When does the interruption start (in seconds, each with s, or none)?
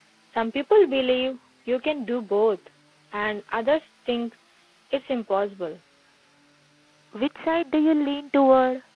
none